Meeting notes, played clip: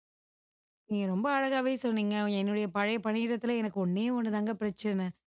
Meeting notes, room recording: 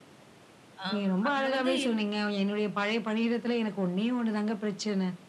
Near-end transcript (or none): ஆ அங்க வந்து